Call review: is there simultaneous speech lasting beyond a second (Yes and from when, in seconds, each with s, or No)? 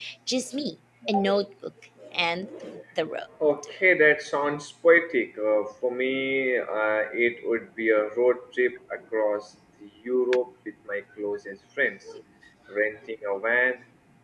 No